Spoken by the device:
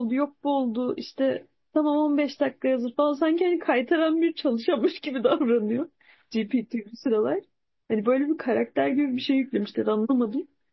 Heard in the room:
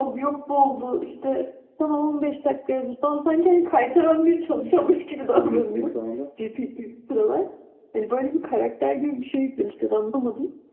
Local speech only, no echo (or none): söylemek istediğim şu anda.